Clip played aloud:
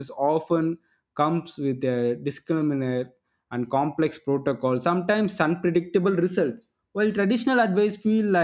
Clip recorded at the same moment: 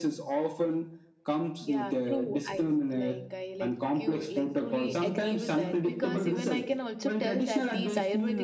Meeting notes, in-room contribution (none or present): present